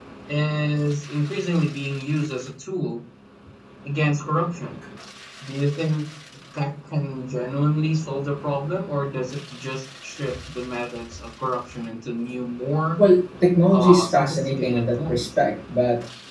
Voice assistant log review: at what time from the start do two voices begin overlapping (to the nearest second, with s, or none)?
14 s